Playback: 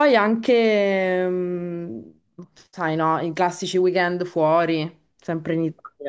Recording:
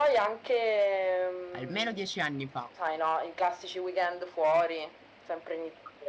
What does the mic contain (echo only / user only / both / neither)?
both